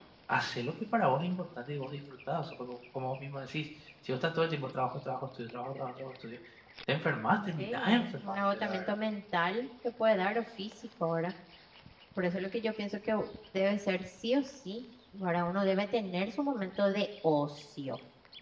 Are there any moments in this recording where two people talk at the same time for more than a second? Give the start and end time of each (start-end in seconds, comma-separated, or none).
7.6-8.9